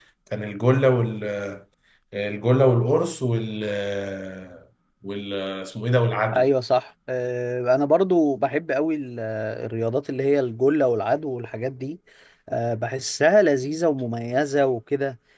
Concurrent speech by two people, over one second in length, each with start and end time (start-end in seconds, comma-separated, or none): none